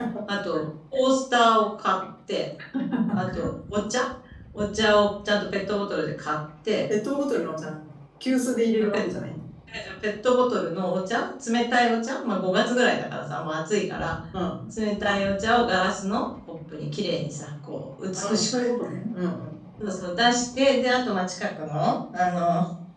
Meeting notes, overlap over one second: none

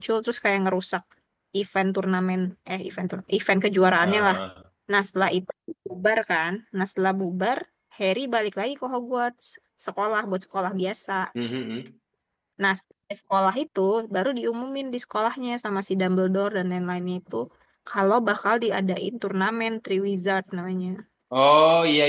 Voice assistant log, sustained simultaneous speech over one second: none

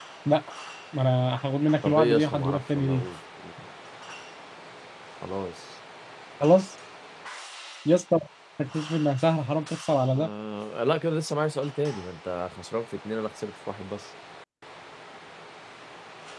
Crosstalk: present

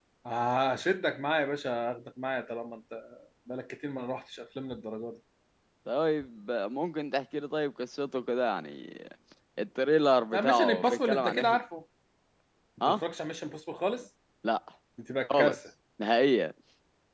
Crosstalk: present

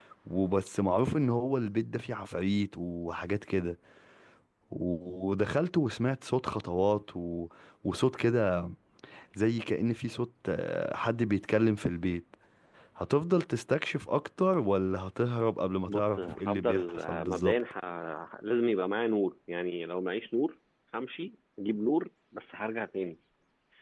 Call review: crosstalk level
present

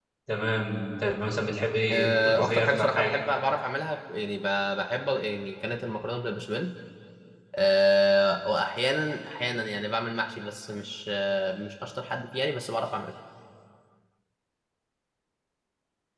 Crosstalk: present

